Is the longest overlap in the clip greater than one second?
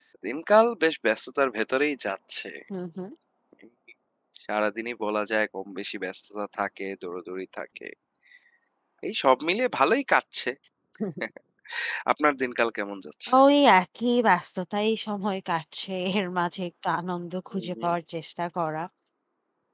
No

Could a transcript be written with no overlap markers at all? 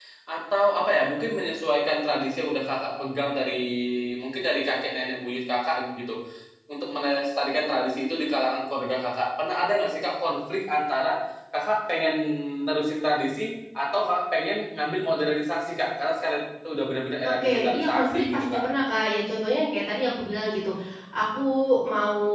No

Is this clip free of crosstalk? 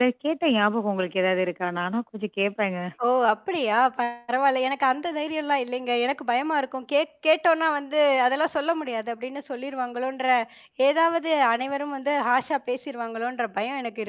Yes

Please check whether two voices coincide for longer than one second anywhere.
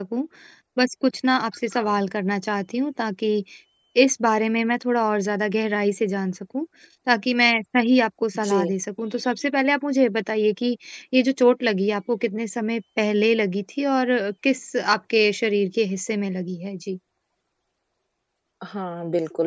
No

